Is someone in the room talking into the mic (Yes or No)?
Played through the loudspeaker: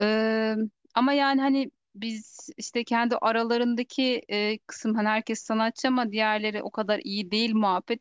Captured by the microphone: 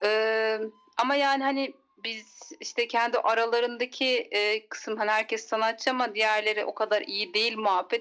No